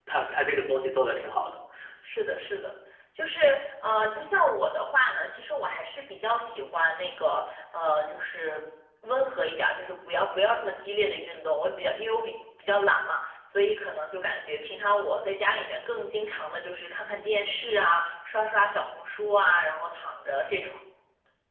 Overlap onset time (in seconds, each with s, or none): none